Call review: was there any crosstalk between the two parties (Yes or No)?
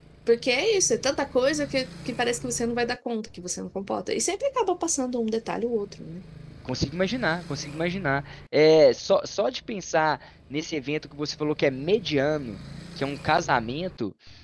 No